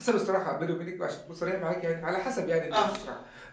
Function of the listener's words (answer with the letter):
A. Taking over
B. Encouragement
B